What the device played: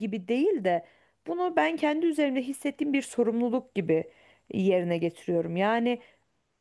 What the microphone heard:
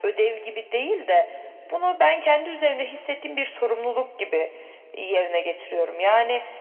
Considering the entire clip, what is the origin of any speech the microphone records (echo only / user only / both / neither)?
echo only